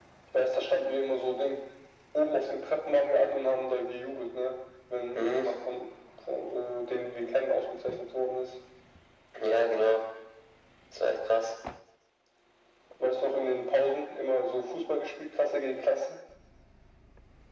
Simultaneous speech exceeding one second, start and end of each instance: none

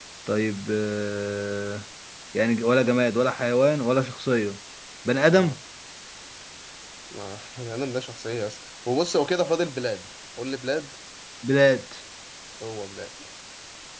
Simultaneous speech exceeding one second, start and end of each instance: none

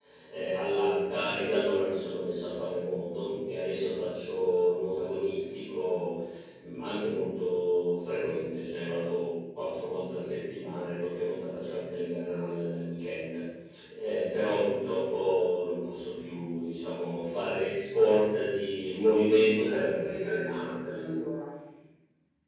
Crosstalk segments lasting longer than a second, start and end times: 19.6-21.1

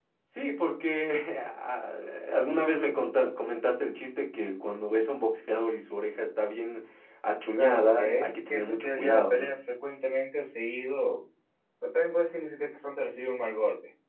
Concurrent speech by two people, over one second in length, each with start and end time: 7.6-9.6

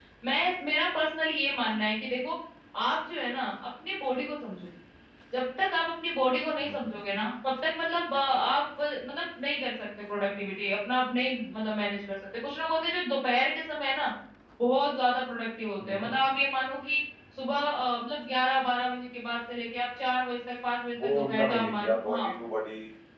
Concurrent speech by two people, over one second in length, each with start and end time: 21.0-22.3

